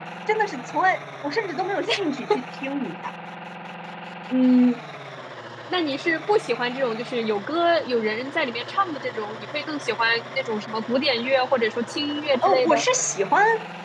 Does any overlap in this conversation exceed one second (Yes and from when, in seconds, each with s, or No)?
No